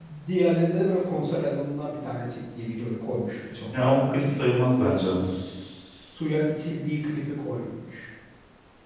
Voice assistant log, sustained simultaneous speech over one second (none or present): none